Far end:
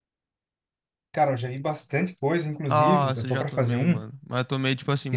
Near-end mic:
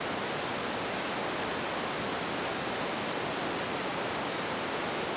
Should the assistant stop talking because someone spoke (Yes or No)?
No